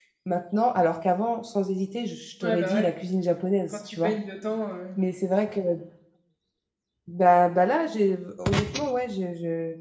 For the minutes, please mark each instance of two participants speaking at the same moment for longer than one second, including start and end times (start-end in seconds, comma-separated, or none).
none